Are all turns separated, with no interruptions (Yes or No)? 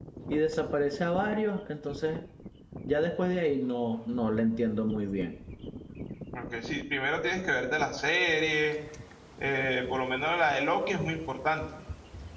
Yes